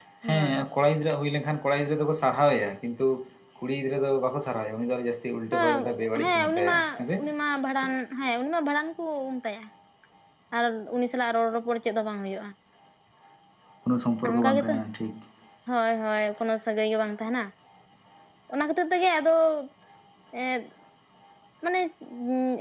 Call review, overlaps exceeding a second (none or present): present